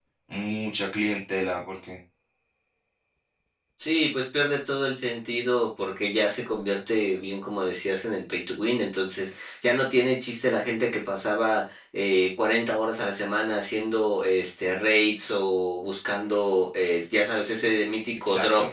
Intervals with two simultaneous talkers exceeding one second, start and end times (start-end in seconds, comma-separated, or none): none